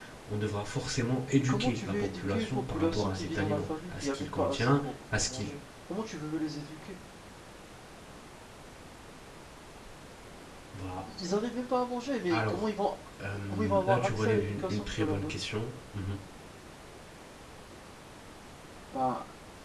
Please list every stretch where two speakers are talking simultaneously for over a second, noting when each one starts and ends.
1.4-5.5, 13.5-15.4

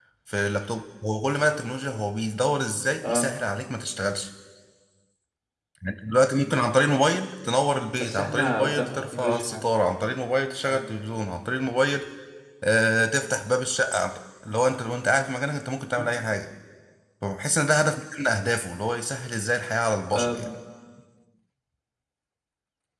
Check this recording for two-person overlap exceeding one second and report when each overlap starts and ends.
7.9-9.7

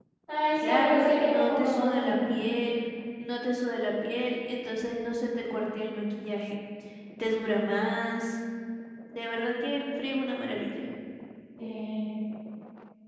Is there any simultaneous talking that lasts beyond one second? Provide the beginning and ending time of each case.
0.6-2.3

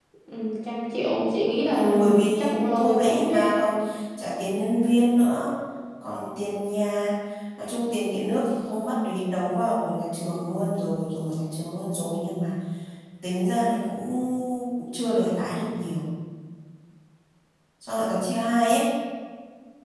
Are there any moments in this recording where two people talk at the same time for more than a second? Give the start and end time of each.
1.7-3.6

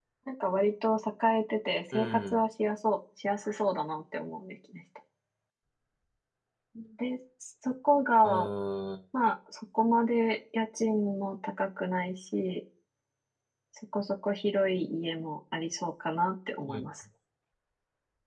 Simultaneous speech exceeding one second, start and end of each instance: none

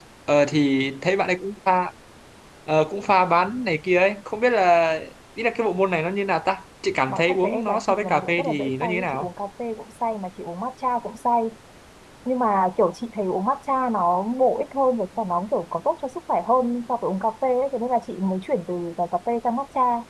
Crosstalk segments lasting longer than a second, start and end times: 7.1-9.3

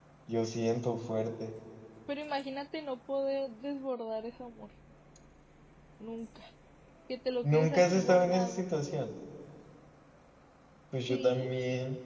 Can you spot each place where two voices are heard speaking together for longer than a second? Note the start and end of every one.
7.4-8.6

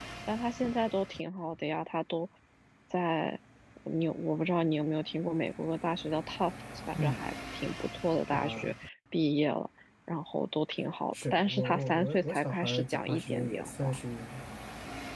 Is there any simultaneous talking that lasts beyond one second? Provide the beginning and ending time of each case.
11.2-14.0

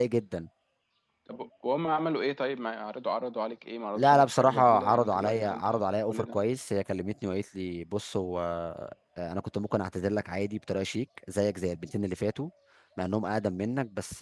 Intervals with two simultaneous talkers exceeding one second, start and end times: 4.0-6.4

